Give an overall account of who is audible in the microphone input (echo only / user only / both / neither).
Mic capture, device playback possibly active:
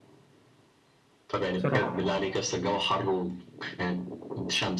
both